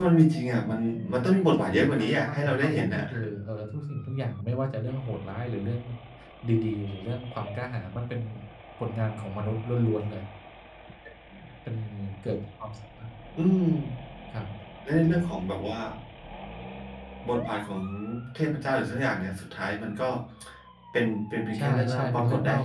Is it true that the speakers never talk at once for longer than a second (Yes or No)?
No